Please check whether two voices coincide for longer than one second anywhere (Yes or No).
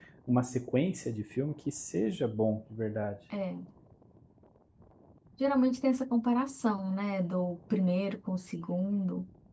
No